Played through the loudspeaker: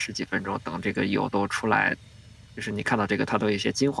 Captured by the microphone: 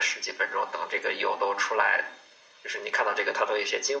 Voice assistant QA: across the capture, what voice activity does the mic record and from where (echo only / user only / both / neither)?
echo only